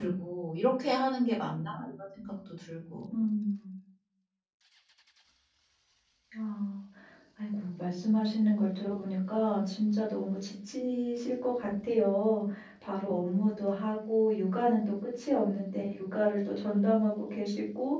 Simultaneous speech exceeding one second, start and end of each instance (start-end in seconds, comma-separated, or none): none